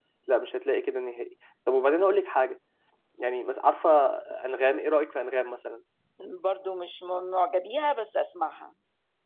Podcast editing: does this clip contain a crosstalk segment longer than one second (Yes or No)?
No